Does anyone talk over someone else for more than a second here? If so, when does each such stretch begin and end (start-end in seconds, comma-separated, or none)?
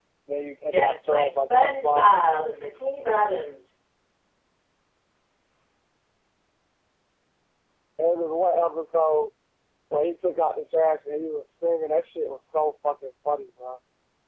0.7-2.1